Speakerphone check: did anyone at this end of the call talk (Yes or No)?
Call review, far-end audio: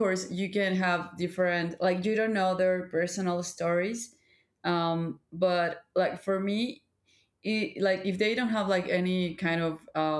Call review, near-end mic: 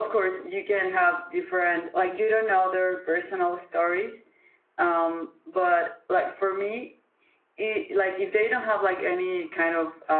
No